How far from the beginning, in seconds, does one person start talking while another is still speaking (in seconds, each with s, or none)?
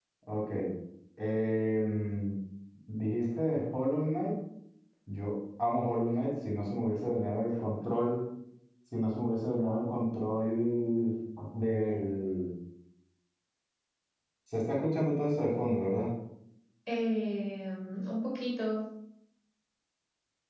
none